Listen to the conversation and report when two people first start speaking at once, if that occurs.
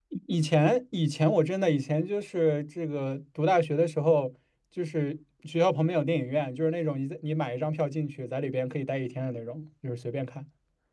none

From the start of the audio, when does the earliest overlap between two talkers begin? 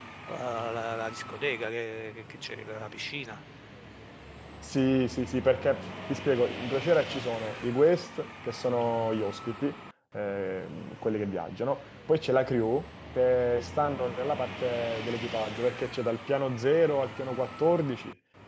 none

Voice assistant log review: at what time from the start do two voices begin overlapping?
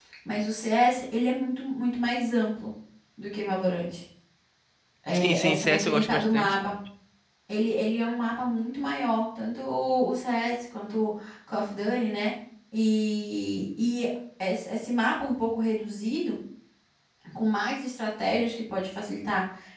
5.1 s

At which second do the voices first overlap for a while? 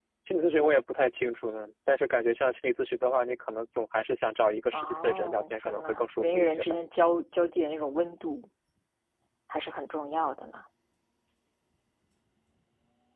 4.7 s

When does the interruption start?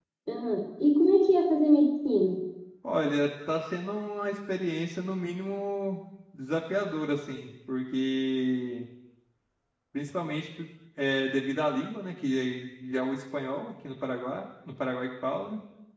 none

